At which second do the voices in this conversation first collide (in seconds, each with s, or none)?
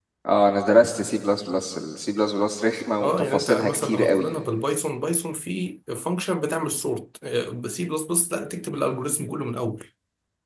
3.0 s